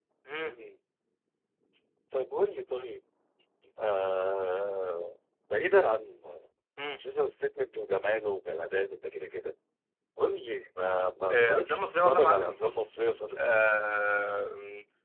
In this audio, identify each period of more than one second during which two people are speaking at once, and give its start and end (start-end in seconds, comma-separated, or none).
11.3-12.8